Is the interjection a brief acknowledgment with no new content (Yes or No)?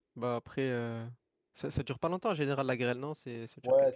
No